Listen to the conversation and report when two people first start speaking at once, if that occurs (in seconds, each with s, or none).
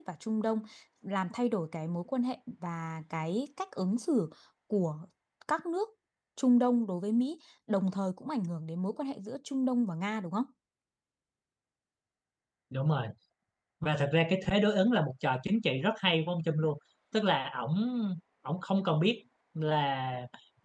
none